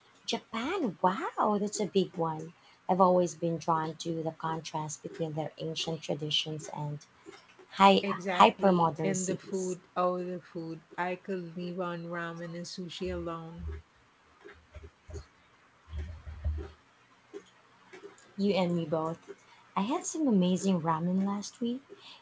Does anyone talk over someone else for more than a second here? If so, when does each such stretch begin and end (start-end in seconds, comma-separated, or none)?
8.0-9.7